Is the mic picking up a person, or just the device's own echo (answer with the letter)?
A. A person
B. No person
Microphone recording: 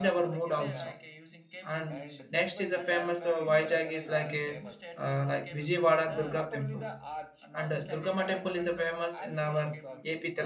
A